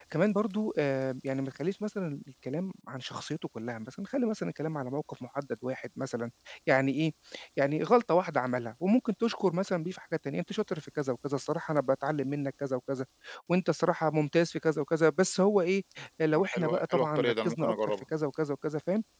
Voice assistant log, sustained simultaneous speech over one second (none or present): present